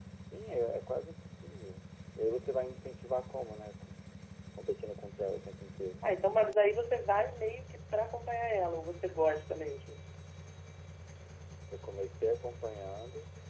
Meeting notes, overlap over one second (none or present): none